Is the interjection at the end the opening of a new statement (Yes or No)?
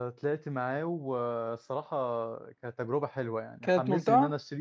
No